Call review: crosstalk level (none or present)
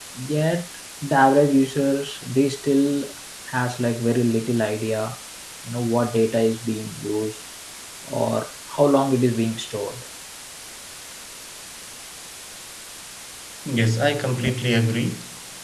none